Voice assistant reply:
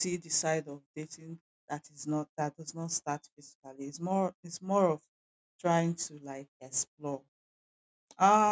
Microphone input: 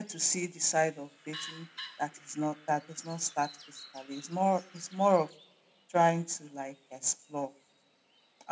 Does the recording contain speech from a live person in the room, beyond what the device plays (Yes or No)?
No